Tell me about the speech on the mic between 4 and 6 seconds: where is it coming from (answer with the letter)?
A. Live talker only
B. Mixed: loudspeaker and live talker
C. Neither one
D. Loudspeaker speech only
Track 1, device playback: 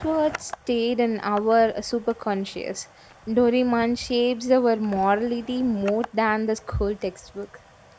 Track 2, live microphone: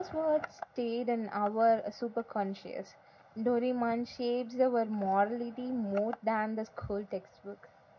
D